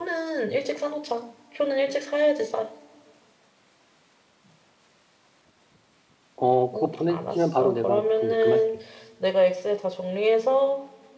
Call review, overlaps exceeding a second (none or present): present